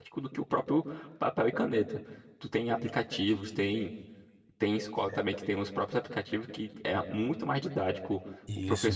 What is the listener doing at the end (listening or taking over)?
listening